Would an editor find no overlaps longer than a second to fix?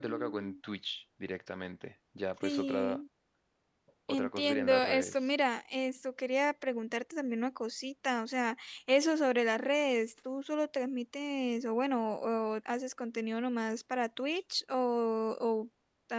No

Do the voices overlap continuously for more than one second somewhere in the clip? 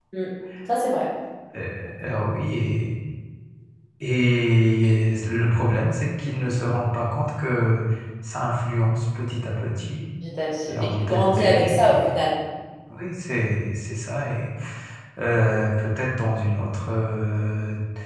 Yes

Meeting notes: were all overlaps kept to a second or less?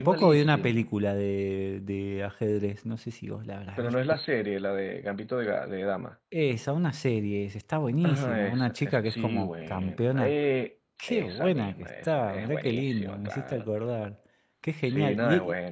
No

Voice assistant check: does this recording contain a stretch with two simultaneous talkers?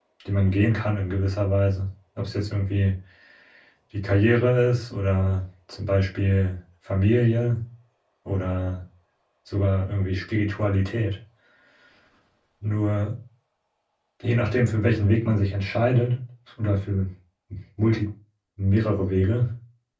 No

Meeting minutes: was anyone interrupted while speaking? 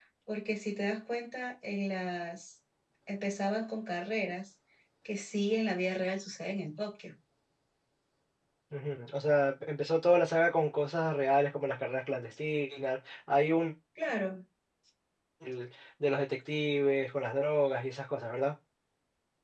No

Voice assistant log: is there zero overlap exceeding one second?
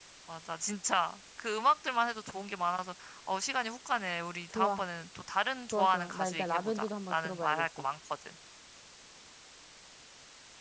No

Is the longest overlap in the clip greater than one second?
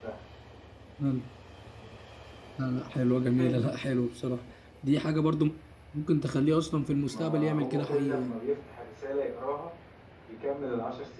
Yes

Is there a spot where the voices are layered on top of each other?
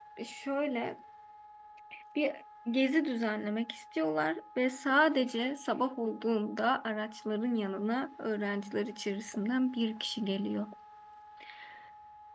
No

